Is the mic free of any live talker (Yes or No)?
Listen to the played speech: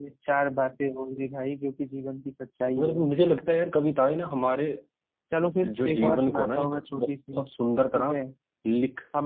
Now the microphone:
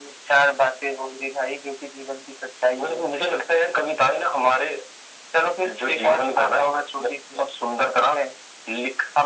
Yes